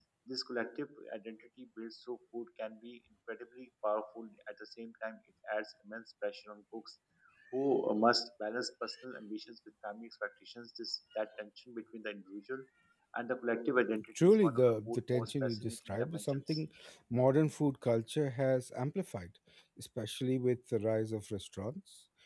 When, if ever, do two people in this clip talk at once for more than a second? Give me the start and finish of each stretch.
14.2-16.6

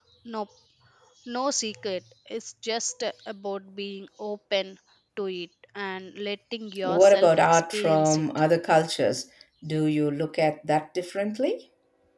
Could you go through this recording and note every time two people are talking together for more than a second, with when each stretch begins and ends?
6.8-8.2

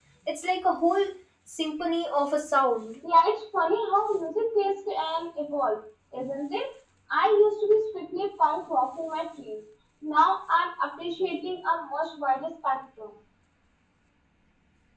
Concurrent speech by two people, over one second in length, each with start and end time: none

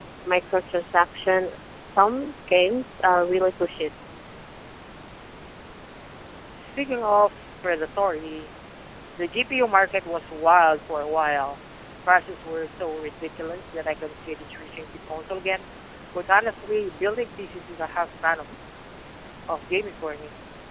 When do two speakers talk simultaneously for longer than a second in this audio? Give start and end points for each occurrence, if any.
none

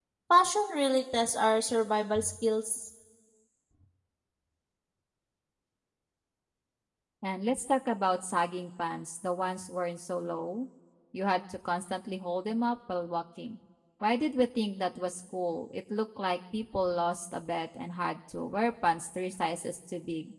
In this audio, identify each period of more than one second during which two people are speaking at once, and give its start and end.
none

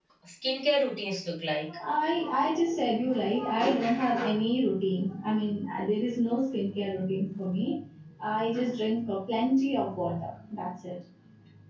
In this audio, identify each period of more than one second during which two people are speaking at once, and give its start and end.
none

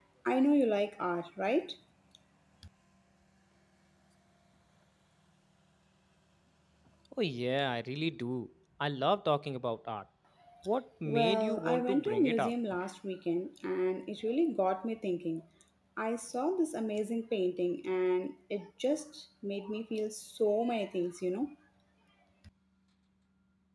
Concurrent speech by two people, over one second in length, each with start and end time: 11.1-12.5

